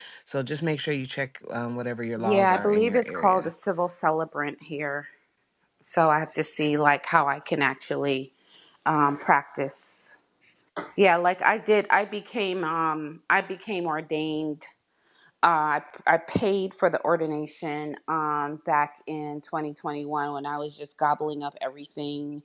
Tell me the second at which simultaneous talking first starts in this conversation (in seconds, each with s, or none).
2.2 s